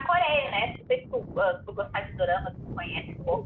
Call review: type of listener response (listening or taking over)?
taking over